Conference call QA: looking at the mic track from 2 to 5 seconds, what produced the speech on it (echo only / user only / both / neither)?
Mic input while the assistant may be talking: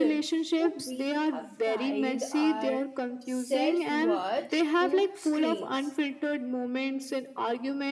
both